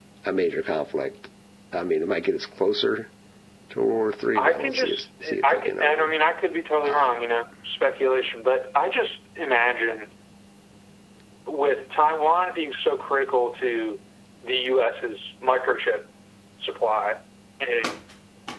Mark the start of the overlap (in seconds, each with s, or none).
4.3 s